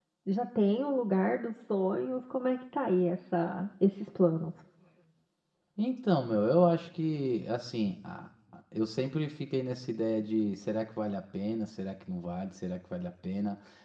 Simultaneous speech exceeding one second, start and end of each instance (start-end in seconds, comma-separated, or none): none